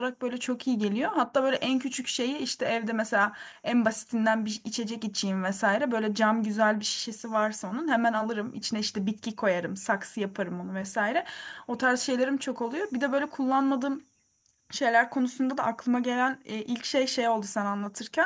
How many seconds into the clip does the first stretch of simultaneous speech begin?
none

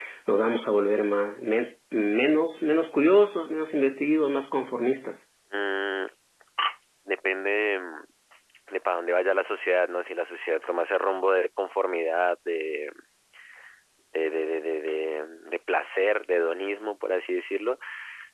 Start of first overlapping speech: none

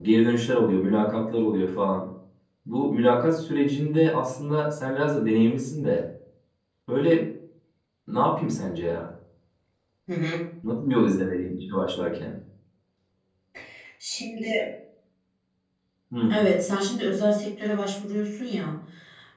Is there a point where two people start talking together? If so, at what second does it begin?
none

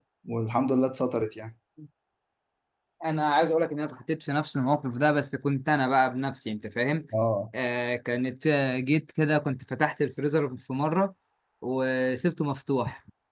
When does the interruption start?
none

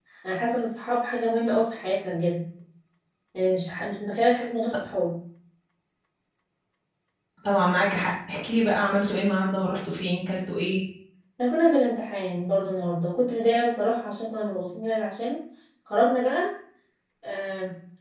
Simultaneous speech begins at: none

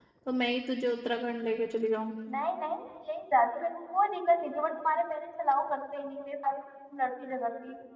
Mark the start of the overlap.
none

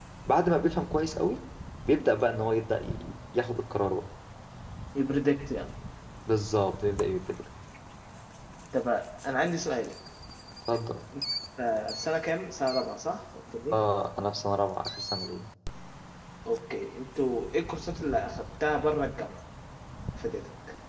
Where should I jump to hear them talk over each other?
none

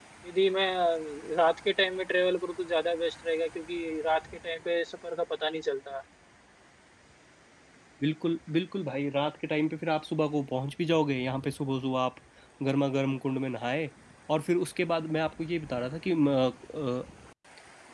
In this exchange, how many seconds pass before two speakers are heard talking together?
none

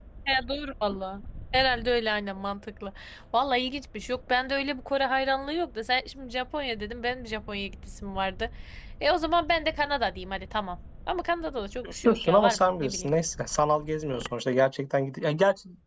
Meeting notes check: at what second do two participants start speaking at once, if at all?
11.8 s

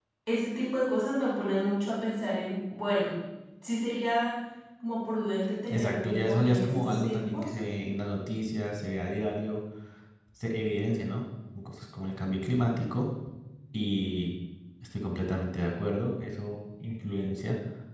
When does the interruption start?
5.7 s

